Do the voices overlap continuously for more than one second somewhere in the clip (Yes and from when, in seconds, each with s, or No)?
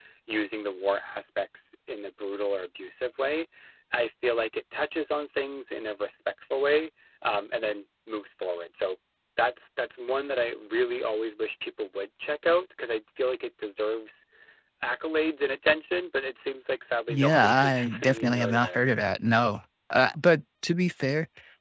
Yes, from 17.1 s